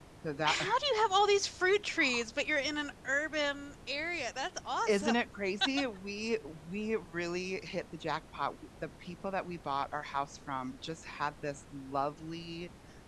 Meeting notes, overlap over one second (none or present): none